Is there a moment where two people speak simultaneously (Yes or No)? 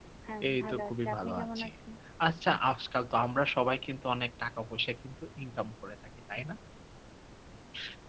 Yes